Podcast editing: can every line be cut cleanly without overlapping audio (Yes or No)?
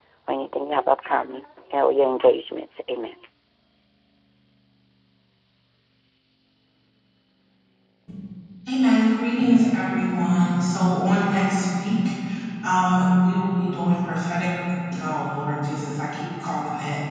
Yes